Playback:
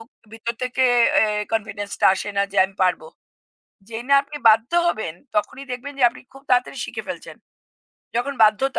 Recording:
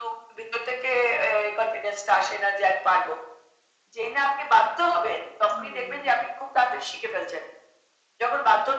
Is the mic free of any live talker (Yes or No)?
No